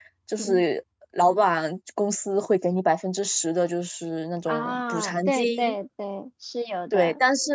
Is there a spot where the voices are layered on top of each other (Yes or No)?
Yes